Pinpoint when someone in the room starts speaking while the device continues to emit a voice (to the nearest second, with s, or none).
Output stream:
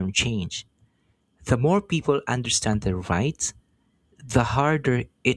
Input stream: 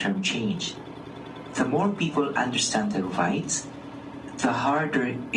none